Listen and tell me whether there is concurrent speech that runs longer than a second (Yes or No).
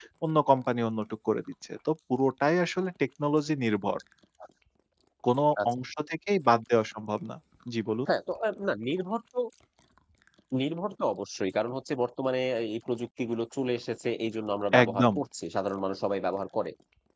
No